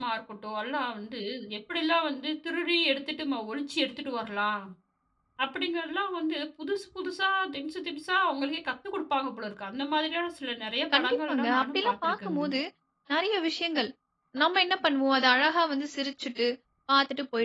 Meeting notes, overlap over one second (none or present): present